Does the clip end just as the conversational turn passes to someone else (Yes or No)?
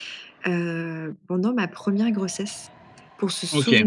No